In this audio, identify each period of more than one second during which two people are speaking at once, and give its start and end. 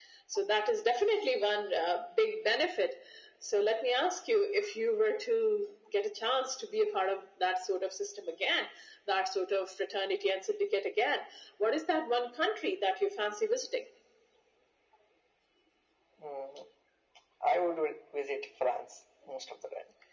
none

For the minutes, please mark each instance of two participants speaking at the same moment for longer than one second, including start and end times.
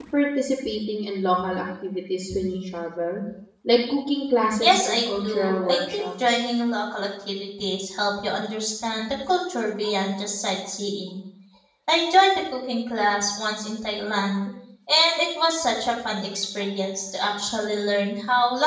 4.6-6.4

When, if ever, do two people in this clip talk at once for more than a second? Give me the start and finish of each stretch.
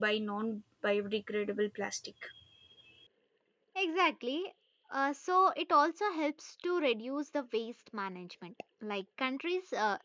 none

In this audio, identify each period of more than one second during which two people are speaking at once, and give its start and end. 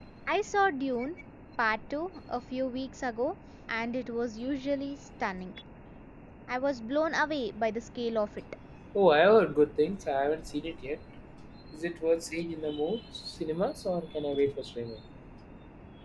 none

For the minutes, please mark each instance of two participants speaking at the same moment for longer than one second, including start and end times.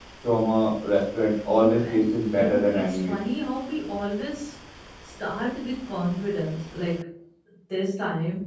1.5-3.2

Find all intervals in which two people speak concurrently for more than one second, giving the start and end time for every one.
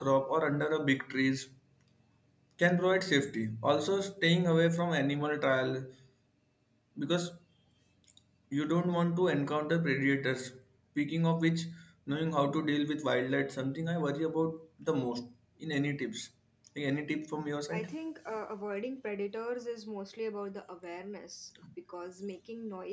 none

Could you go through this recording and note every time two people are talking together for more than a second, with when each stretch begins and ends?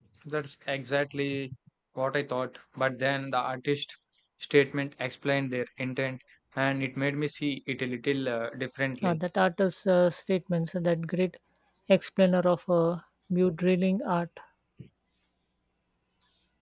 none

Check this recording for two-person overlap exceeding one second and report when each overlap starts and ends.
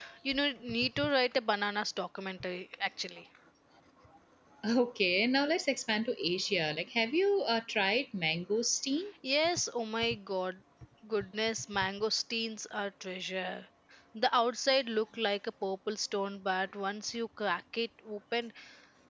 none

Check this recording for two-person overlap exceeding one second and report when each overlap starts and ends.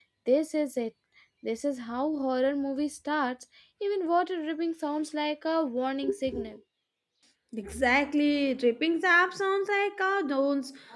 none

